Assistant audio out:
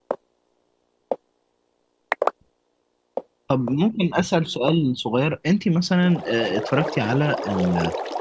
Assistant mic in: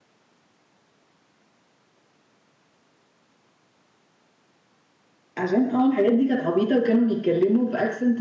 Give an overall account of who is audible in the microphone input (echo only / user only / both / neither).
user only